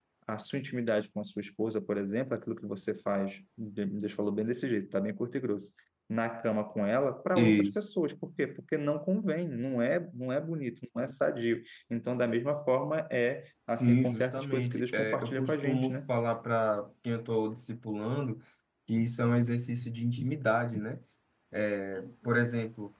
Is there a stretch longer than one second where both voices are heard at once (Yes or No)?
Yes